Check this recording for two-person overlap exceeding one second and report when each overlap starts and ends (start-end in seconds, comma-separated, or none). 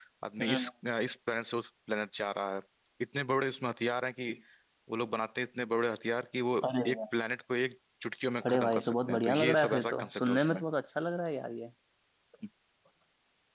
8.4-10.6